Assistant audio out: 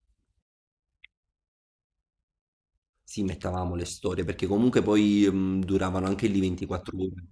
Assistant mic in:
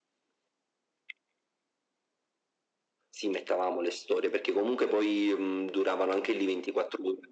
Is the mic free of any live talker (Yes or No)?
Yes